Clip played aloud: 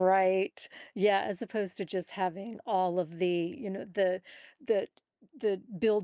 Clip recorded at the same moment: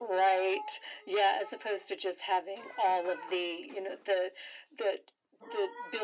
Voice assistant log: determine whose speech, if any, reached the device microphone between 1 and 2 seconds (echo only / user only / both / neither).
echo only